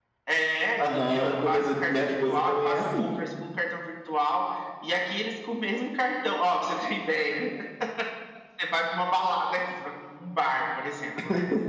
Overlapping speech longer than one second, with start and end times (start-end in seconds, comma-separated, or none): 0.8-3.1